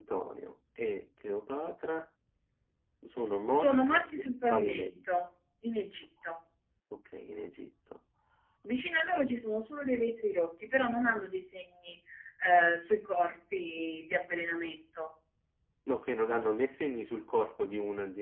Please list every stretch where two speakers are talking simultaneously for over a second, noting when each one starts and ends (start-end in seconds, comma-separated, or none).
3.5-5.3